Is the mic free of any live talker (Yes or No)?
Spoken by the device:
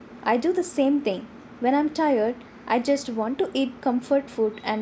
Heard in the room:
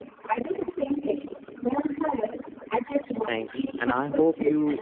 No